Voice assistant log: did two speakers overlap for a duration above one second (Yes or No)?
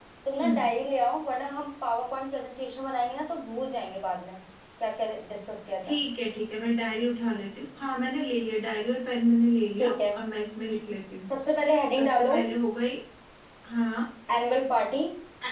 No